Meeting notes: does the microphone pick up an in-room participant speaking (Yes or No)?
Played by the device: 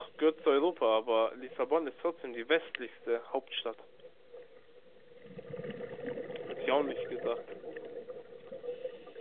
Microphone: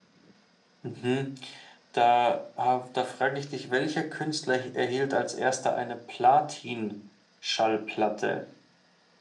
Yes